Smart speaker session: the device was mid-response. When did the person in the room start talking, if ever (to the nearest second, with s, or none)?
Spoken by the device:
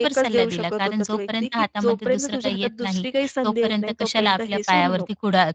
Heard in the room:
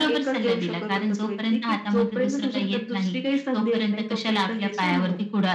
none